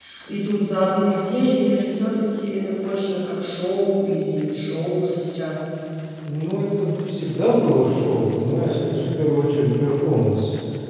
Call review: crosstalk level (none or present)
none